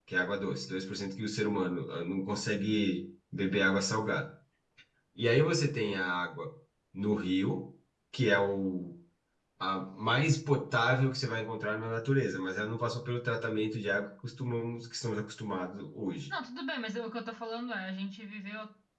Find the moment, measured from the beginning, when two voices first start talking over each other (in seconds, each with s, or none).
none